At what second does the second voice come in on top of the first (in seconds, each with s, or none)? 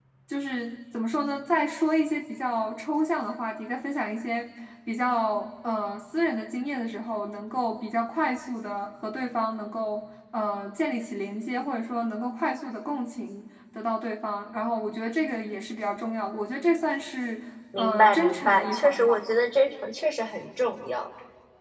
17.7 s